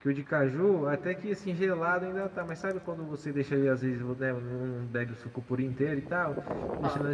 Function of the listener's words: listening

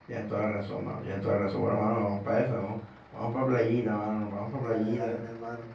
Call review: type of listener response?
taking over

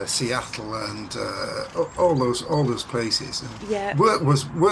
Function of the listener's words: listening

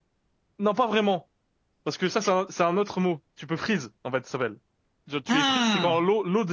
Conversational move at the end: listening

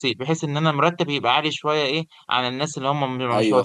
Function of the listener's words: taking over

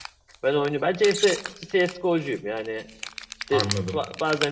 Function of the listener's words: listening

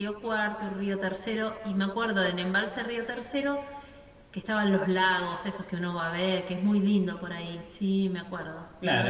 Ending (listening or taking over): taking over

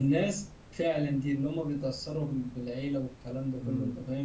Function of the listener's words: listening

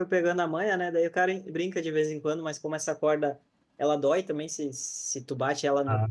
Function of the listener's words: listening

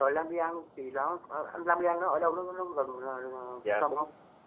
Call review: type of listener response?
taking over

